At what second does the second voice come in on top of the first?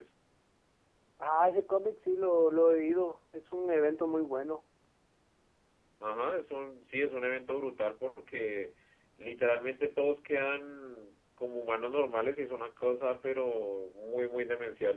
none

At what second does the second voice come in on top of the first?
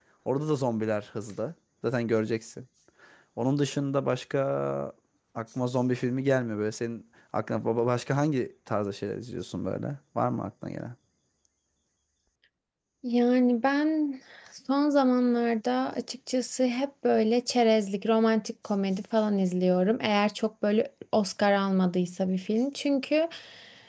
none

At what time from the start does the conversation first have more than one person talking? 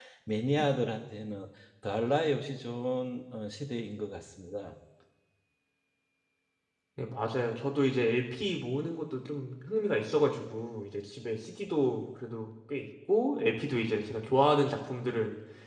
none

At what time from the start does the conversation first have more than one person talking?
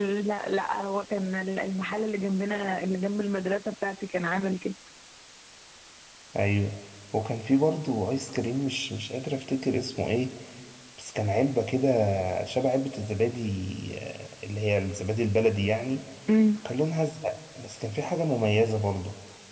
none

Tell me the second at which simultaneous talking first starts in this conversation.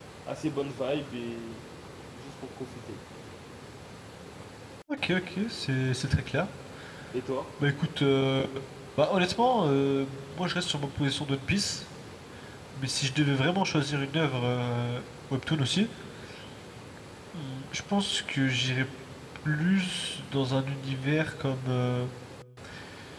none

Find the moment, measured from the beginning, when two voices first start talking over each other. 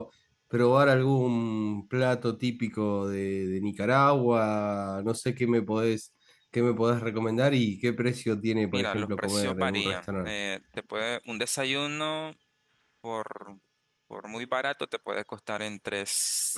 9 s

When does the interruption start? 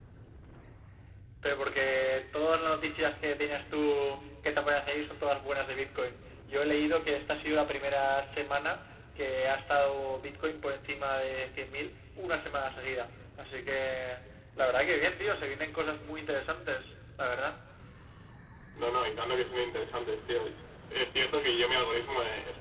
none

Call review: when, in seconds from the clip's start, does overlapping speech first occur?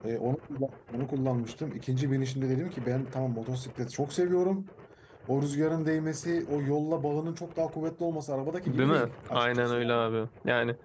9 s

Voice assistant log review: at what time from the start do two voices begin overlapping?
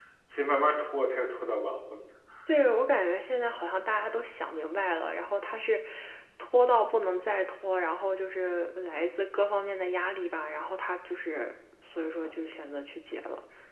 none

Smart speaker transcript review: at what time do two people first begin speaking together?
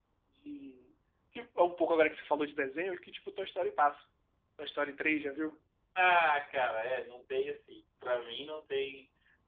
none

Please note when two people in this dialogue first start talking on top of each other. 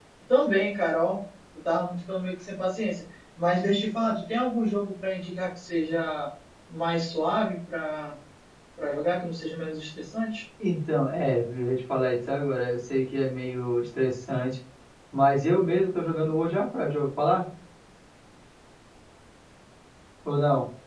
none

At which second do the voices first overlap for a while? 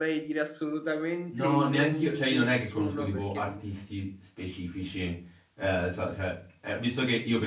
1 s

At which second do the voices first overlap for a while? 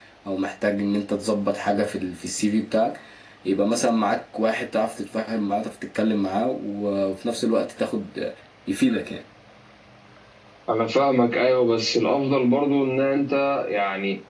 none

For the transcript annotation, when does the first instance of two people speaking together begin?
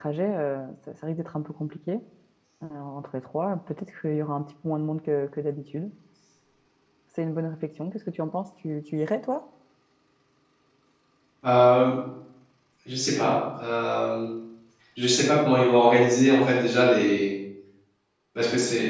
none

